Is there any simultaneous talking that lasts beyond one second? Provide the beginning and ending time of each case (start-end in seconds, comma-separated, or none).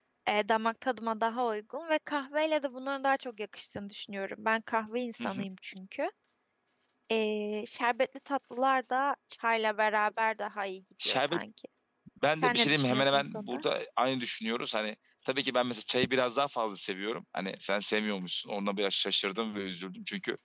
12.4-13.6